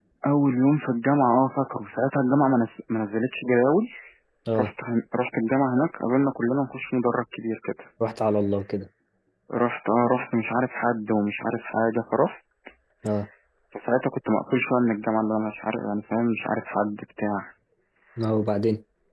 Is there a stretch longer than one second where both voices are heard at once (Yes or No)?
No